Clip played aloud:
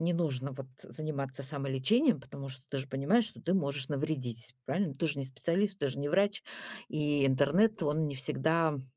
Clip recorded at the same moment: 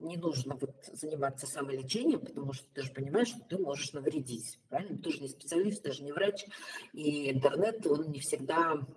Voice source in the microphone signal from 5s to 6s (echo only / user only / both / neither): echo only